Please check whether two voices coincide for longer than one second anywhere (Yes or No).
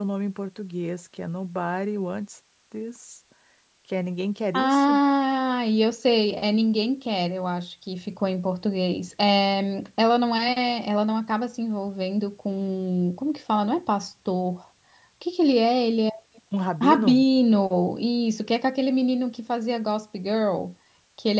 No